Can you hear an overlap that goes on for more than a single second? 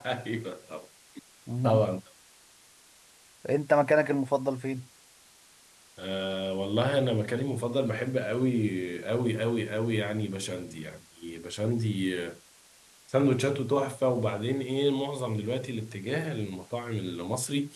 No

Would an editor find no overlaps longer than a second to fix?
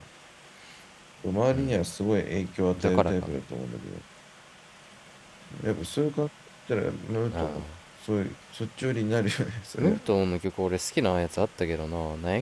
Yes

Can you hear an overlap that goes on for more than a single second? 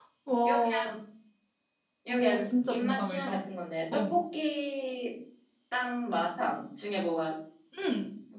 Yes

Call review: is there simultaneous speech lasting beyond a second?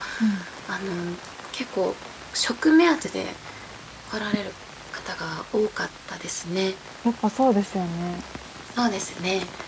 No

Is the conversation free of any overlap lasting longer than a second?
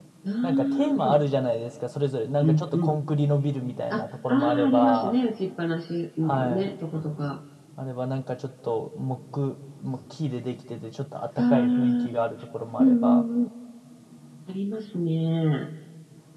No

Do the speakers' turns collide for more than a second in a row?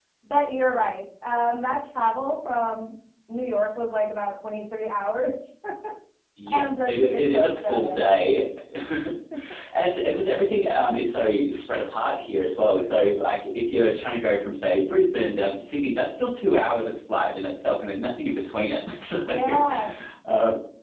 Yes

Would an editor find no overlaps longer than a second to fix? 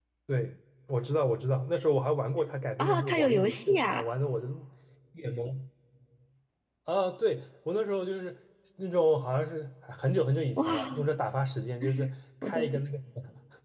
No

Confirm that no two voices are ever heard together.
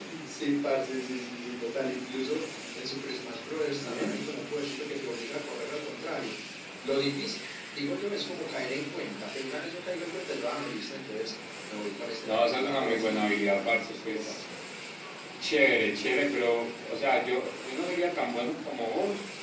No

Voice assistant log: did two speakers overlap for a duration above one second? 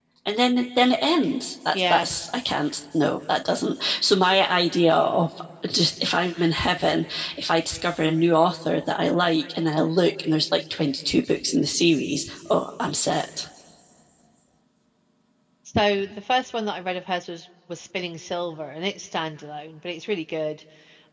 No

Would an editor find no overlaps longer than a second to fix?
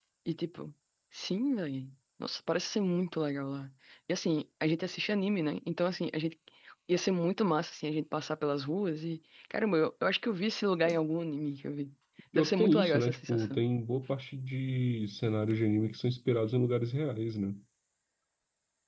No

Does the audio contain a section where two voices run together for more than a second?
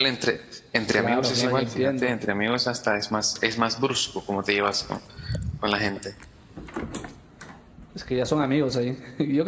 Yes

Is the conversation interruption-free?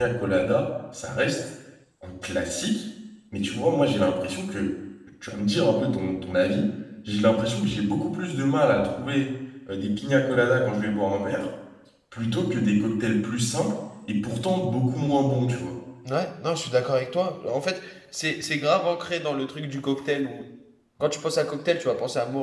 Yes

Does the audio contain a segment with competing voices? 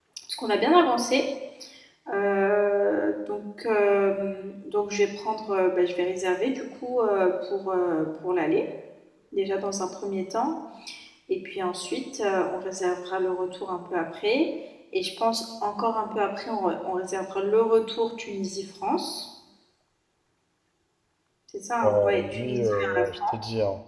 Yes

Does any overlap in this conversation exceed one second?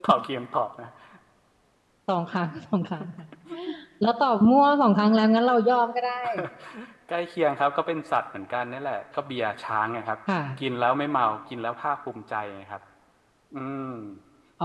No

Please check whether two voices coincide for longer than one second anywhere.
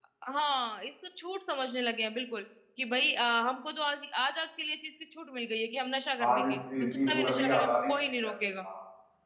Yes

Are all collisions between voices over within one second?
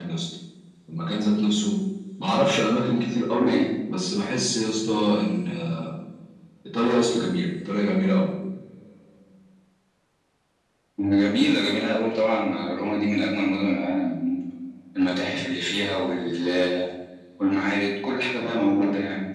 Yes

